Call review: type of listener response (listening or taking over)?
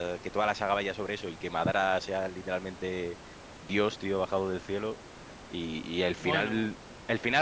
listening